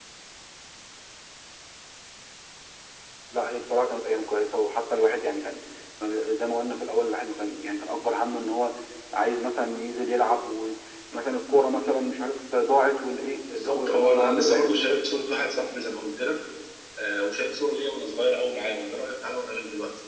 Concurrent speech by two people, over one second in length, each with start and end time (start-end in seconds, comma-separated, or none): 13.5-14.9